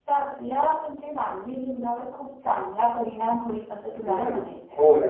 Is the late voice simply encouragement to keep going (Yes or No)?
No